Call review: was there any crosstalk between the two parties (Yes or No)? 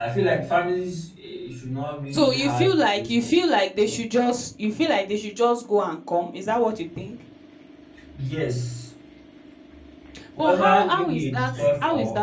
Yes